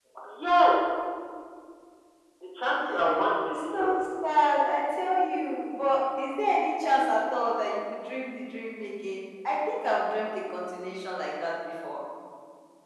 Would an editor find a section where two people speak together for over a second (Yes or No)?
No